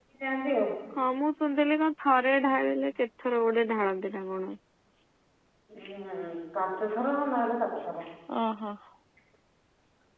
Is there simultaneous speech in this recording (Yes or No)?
No